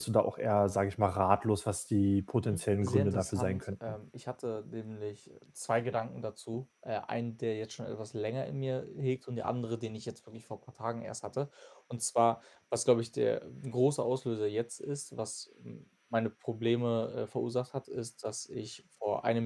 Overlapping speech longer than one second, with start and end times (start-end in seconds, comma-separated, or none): 2.5-4.0